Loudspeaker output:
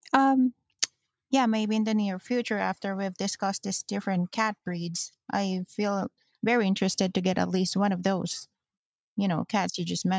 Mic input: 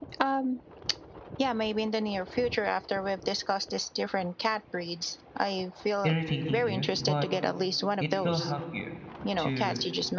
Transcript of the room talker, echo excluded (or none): irritating you, but it will help you to